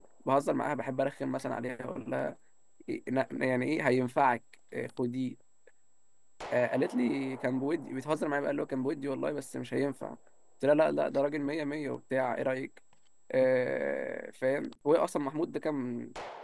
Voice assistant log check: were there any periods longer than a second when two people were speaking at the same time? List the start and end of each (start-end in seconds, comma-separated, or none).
none